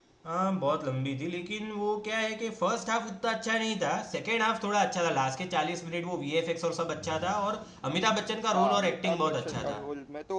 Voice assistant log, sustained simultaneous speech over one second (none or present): present